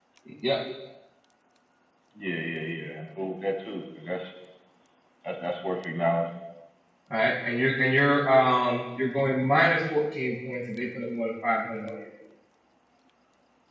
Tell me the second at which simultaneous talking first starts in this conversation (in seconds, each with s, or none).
none